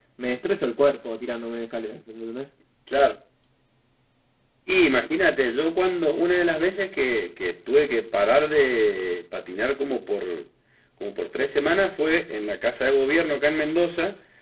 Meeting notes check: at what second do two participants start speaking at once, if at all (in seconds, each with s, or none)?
none